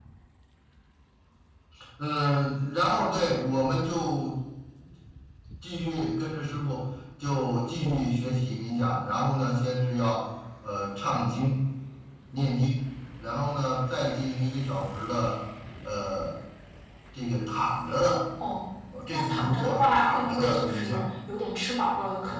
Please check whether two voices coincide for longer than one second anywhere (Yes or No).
Yes